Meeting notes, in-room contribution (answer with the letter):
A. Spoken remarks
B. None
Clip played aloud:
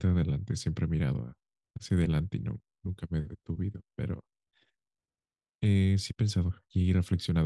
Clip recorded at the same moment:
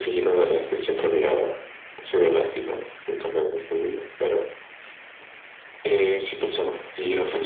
B